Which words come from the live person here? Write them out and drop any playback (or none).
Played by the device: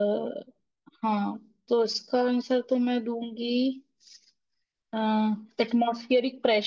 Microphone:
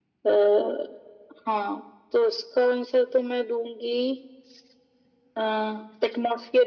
none